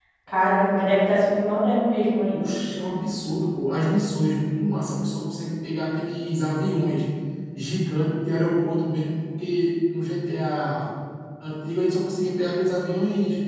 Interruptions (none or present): none